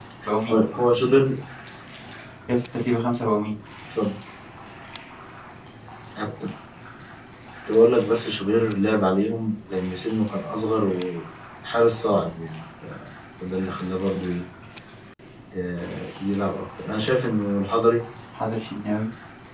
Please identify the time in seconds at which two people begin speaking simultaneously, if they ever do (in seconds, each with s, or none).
none